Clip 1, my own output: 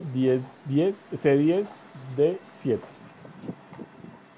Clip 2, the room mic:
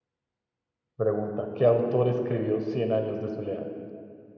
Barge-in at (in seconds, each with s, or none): 1.0 s